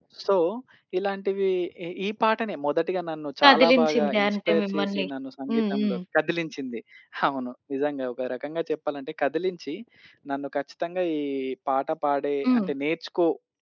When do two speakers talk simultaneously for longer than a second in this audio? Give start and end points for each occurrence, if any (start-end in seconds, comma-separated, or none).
3.4-5.0